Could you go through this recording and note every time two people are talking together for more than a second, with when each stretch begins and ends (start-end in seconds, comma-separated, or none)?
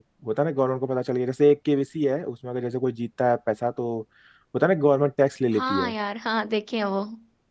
none